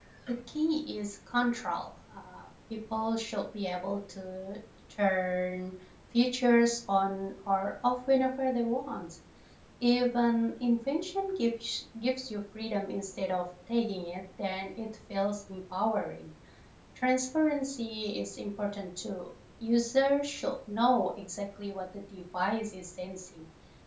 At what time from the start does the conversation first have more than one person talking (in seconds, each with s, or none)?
none